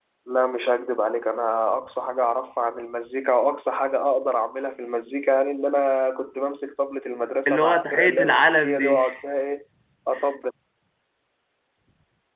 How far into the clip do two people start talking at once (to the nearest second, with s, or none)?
7 s